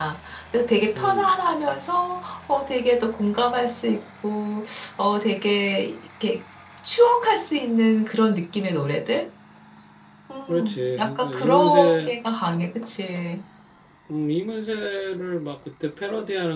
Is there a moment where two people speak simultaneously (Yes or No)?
Yes